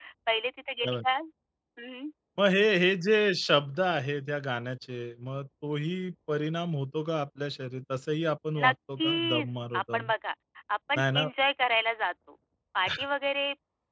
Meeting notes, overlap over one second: present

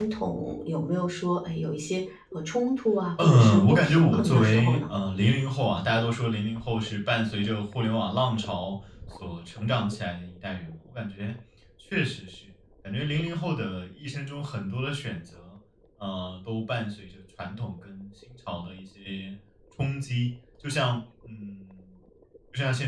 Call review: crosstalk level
present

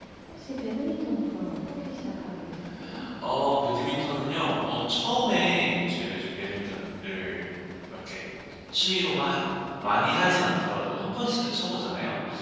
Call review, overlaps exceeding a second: none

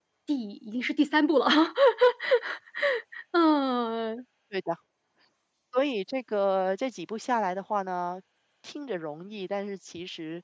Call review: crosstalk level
none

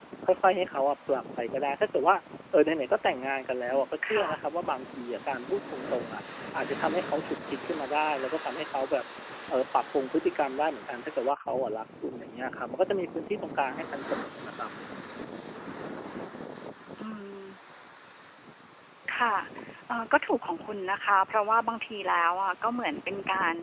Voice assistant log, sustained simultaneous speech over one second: none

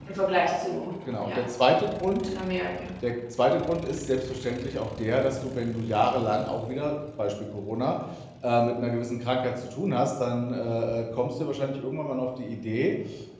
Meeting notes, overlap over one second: none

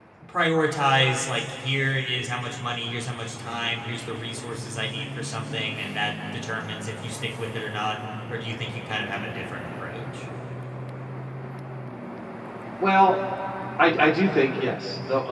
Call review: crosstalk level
none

